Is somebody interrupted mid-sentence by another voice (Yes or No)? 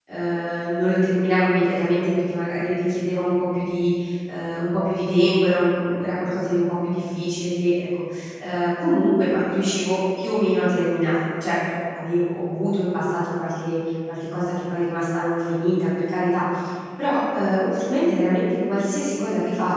No